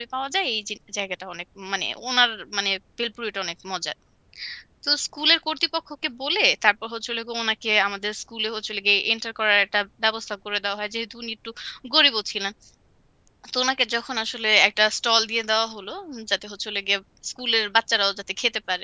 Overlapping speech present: No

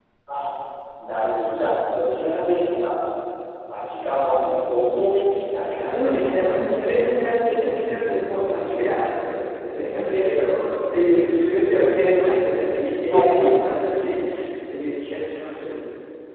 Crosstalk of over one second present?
Yes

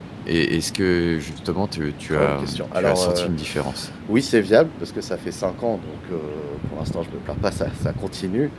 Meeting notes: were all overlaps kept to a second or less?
No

